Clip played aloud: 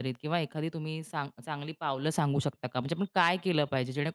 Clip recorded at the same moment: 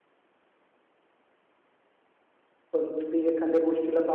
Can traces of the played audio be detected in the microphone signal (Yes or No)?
No